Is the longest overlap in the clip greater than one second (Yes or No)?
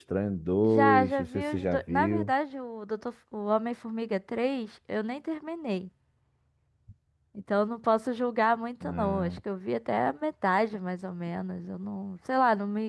Yes